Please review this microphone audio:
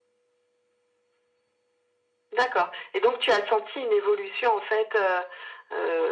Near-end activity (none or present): none